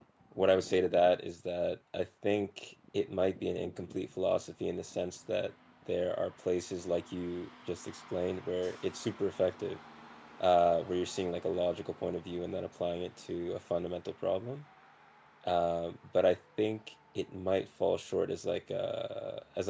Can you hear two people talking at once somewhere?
No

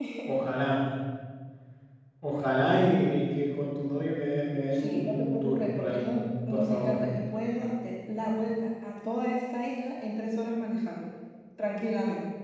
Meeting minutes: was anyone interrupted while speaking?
Yes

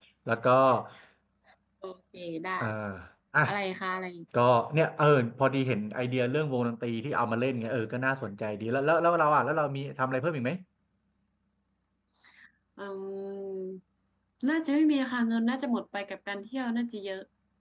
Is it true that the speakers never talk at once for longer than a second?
Yes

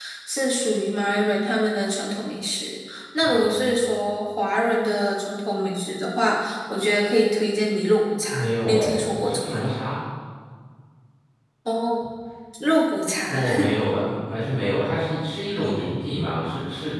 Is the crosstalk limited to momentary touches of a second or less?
No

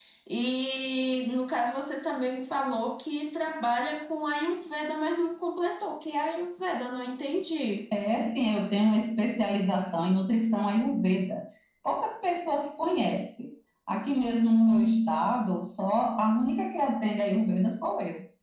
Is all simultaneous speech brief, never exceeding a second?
Yes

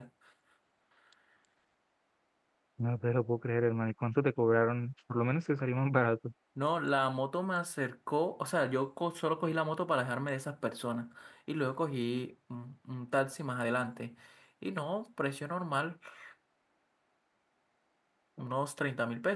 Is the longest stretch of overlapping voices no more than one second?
Yes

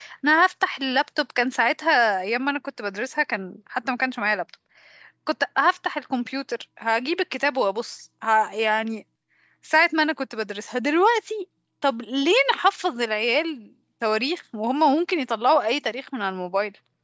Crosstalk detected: No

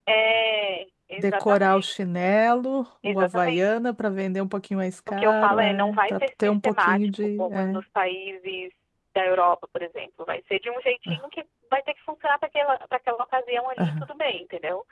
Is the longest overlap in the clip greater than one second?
Yes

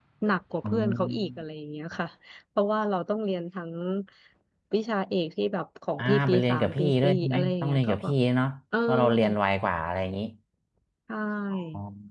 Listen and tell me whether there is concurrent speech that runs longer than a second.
Yes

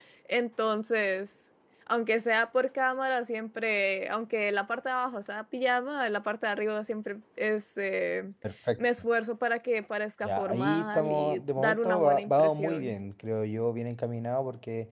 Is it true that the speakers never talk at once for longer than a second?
No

